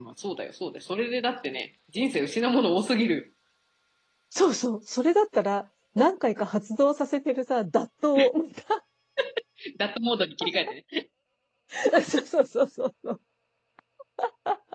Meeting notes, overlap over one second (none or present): none